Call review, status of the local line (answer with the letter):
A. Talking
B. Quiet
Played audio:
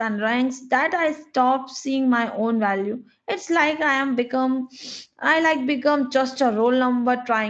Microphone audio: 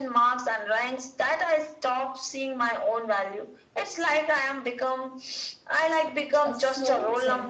A